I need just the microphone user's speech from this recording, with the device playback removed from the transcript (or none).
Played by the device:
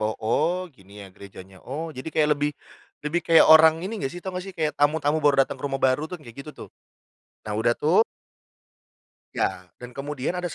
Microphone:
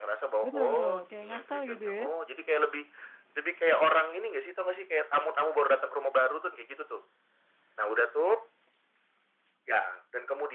Betul betul, kayak ngasal, gitu, ya?